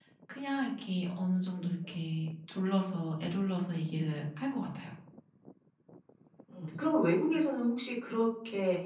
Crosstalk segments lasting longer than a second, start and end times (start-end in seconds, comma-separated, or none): none